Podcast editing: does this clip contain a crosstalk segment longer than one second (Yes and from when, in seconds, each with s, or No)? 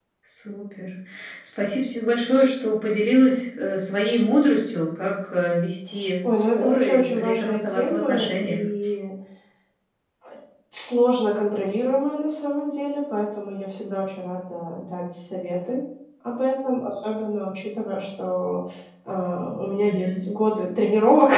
Yes, from 6.3 s